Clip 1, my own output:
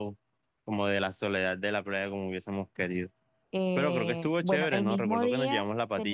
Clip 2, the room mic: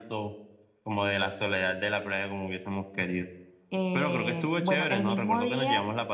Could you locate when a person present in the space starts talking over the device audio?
none

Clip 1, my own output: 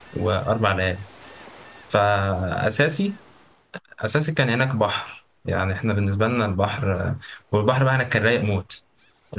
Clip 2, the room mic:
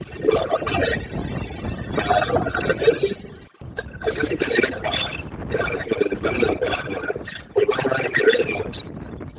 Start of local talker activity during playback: none

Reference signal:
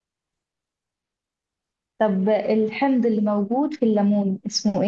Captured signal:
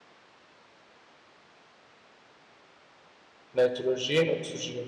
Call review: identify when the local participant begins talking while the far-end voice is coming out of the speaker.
3.5 s

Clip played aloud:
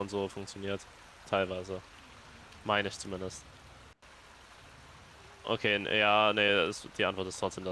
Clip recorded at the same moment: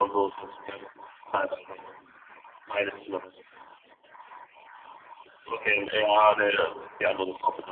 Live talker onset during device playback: none

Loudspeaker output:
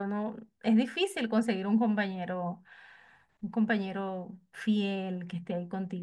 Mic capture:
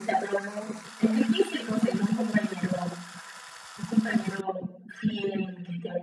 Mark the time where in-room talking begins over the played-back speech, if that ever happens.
none

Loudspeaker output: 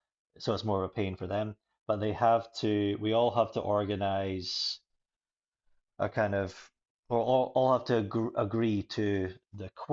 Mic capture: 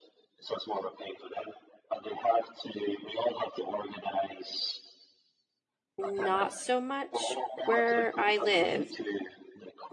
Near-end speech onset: 6.0 s

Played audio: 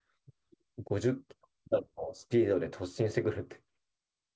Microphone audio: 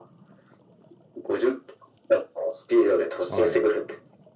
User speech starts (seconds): 3.3 s

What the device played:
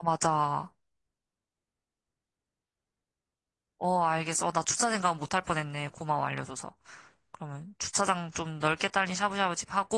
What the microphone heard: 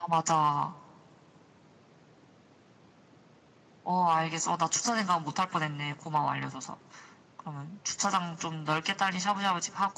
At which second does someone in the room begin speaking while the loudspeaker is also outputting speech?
none

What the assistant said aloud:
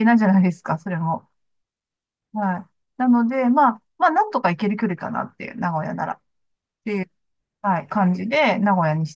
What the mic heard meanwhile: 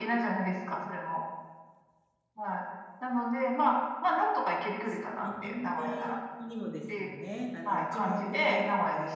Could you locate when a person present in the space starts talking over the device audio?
4.8 s

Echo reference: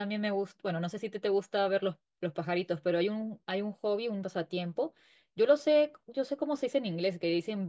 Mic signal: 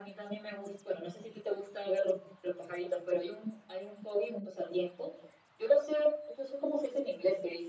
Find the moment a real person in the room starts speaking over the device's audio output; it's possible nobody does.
none

